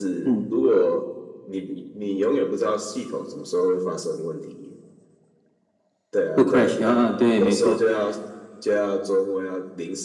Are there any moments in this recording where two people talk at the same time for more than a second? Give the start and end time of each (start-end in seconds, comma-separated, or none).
6.4-7.8